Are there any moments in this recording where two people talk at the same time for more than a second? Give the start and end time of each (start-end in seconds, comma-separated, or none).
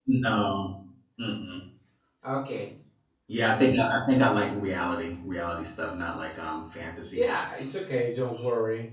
none